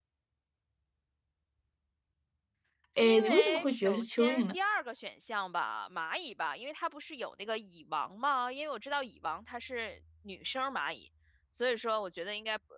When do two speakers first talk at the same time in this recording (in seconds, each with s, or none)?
3.0 s